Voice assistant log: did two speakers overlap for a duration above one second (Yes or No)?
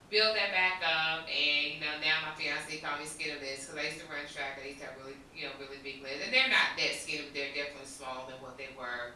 No